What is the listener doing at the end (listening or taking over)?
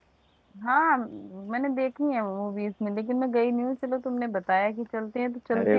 taking over